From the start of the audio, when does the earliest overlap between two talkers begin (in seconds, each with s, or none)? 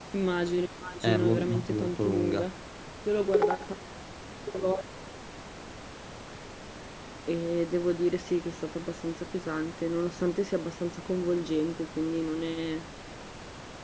1.0 s